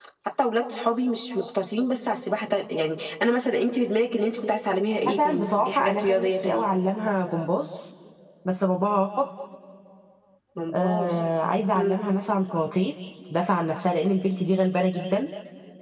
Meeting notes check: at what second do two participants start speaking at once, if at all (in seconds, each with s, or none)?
5.1 s